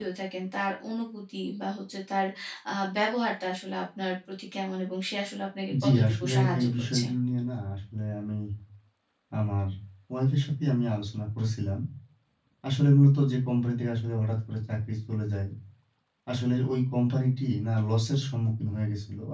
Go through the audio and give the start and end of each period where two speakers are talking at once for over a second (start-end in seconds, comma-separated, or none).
5.8-7.0